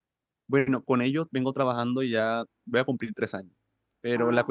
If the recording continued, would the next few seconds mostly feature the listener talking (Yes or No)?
No